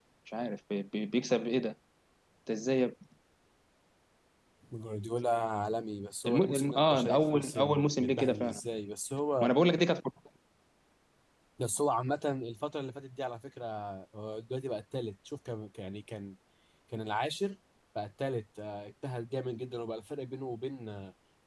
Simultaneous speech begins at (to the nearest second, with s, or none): 6 s